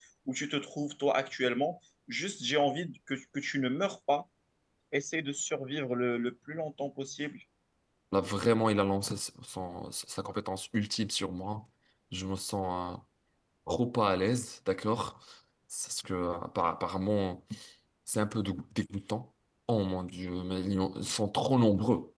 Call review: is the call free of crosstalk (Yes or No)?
Yes